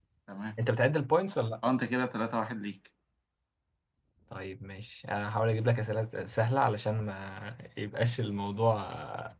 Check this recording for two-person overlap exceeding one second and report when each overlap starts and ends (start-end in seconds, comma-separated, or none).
none